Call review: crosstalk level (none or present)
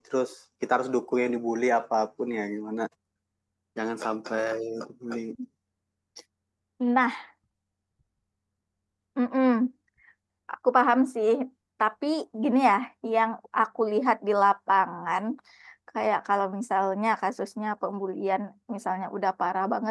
none